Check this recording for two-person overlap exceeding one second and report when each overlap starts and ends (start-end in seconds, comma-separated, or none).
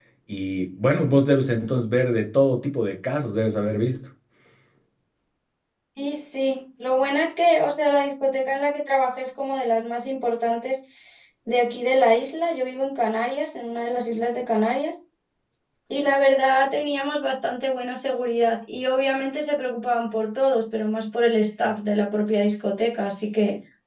none